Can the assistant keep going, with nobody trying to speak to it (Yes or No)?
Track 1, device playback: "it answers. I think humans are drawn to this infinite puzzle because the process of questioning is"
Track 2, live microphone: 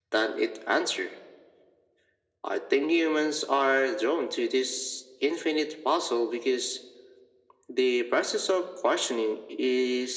Yes